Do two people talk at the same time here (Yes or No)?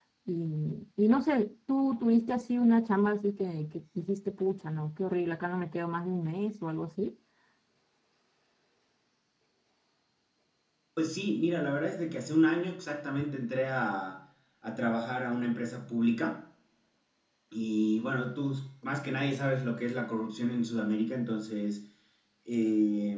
No